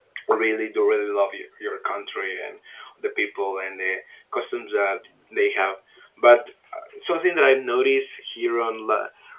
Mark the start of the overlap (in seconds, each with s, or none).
none